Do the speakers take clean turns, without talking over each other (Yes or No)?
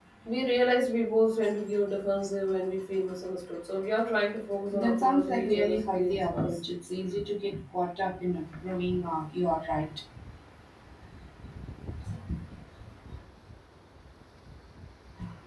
No